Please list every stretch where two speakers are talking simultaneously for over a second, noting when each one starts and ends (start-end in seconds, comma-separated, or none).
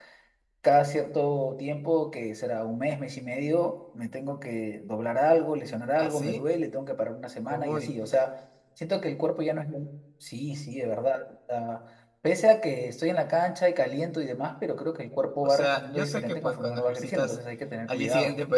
15.4-17.4